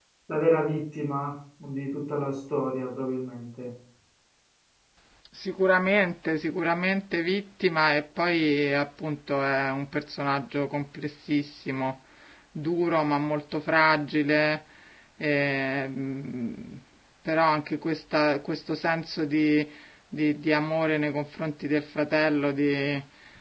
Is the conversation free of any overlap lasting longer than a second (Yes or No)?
Yes